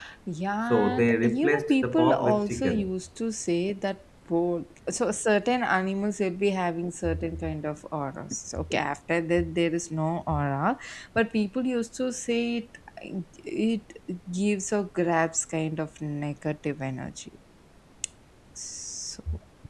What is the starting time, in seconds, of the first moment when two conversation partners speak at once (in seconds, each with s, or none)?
0.7 s